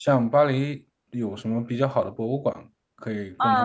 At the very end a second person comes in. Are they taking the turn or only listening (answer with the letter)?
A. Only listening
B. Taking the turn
B